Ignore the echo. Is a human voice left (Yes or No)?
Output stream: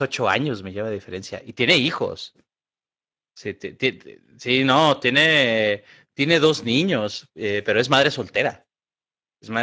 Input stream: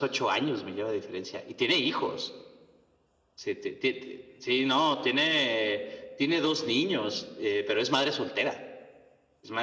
No